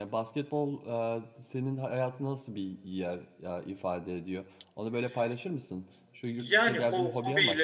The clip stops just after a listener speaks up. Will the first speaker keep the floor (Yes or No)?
No